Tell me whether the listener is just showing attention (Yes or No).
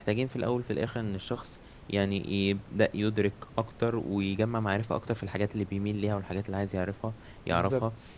Yes